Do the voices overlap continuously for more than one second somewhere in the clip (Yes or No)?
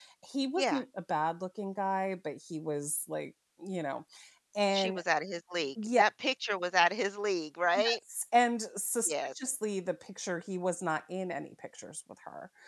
No